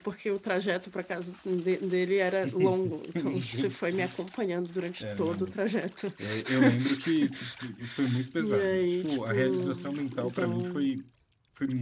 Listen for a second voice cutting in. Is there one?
Yes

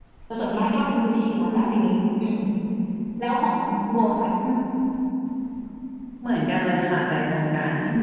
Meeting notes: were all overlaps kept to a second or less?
Yes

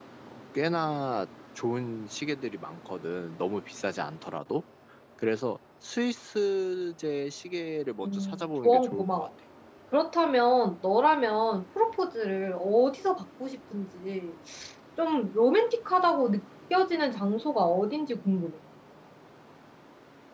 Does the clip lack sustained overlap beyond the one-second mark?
No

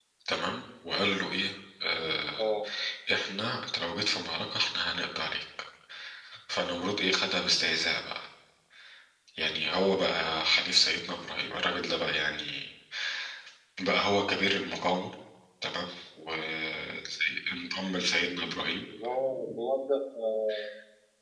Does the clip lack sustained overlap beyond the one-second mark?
Yes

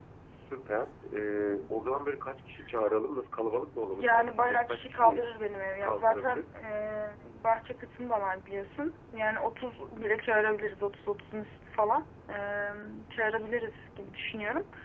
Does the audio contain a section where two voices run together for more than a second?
Yes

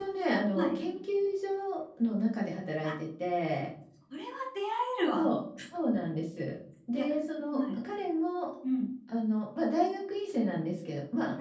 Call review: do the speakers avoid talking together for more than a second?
Yes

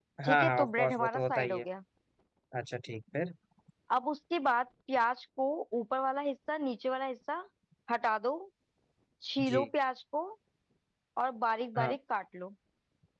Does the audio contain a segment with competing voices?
Yes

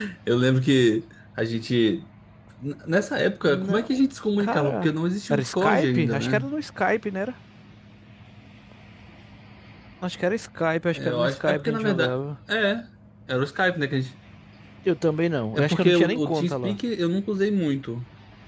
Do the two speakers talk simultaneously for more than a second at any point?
Yes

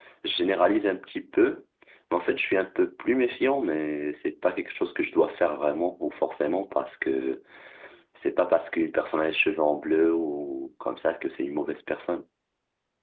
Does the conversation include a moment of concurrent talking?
No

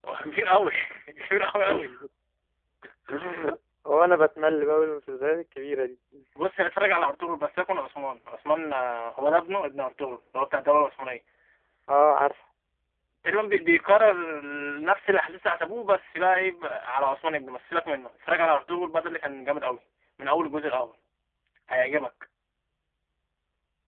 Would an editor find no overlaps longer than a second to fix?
Yes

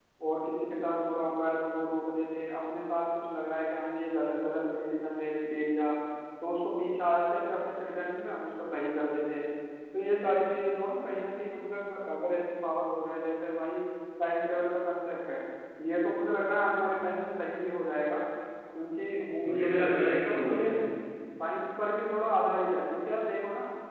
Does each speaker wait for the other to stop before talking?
No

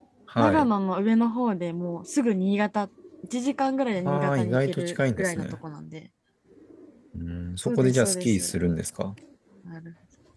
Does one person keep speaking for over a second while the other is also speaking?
Yes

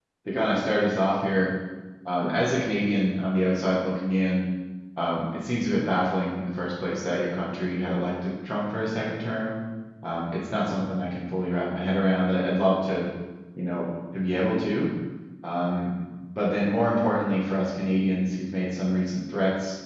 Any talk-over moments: No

